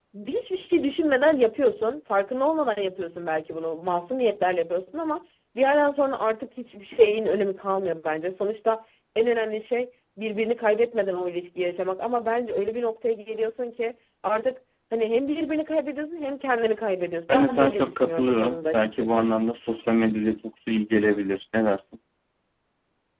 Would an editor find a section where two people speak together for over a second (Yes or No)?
Yes